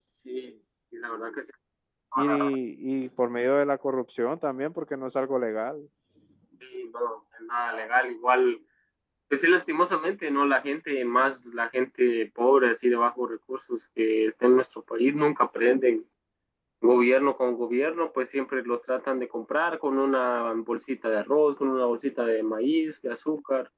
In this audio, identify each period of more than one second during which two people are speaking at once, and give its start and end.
none

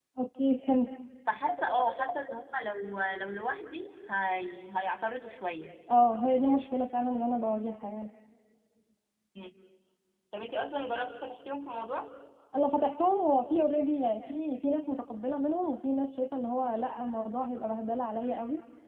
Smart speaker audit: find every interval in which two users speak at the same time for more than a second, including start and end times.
none

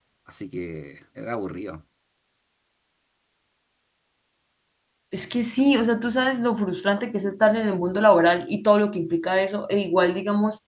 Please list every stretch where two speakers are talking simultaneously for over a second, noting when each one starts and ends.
none

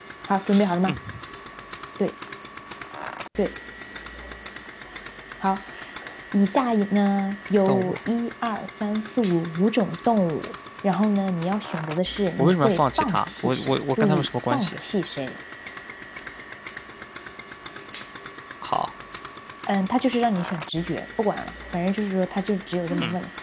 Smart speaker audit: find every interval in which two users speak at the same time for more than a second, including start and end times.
12.4-14.8

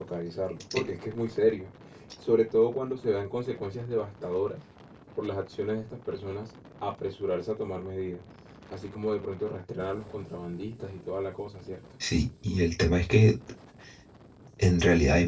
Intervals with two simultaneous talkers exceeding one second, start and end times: none

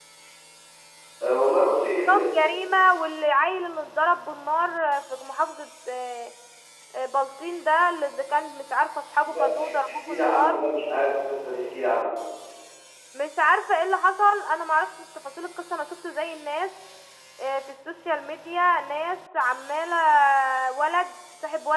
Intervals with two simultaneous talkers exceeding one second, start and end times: 9.2-10.6

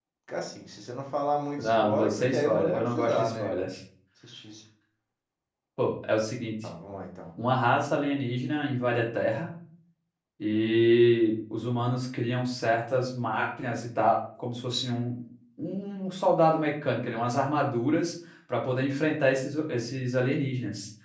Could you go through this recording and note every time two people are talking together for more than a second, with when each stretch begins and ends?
1.6-3.6

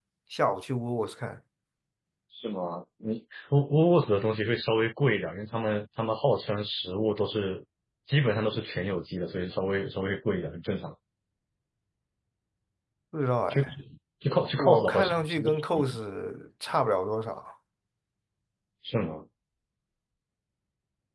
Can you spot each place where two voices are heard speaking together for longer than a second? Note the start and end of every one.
14.6-15.8

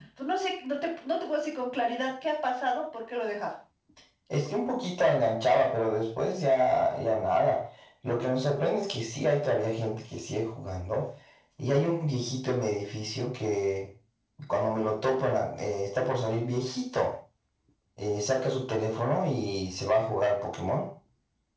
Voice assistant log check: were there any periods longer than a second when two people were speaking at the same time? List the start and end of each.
none

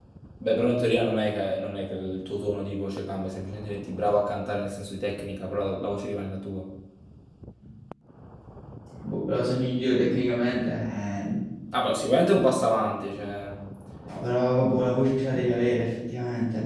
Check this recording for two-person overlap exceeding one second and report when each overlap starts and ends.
none

